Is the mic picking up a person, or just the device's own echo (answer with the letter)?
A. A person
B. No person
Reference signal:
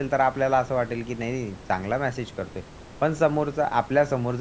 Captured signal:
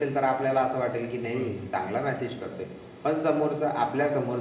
A